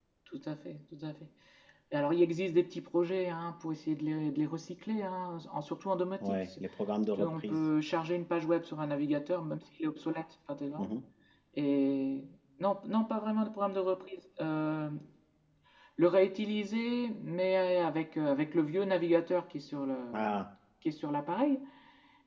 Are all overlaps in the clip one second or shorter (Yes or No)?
Yes